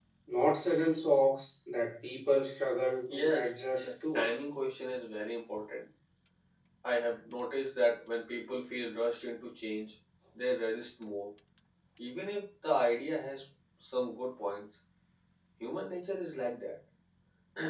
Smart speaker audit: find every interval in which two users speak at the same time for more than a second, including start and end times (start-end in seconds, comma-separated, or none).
3.1-4.3